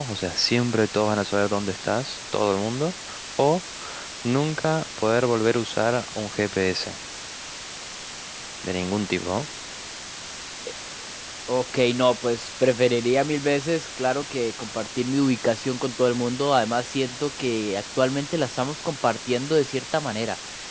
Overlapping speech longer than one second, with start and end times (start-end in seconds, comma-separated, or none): none